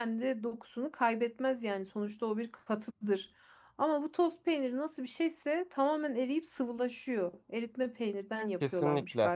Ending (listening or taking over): taking over